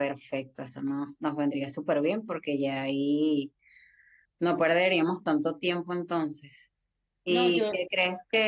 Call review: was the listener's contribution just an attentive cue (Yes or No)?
Yes